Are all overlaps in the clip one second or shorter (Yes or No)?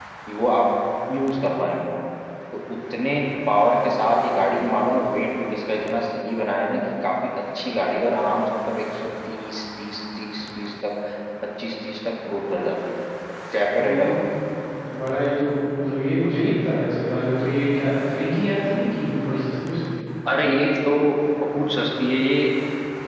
Yes